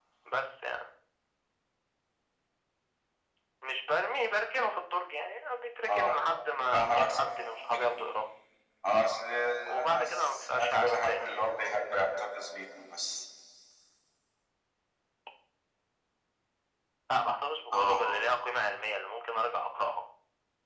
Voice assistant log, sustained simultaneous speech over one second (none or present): present